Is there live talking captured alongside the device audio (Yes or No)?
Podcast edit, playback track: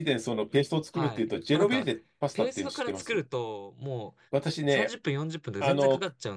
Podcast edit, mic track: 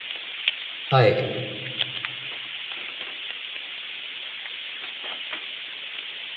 Yes